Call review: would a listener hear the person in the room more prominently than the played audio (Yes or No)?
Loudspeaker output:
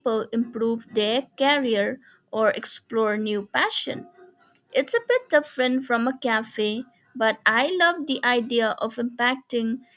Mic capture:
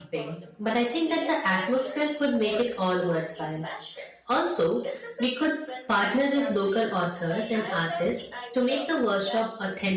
Yes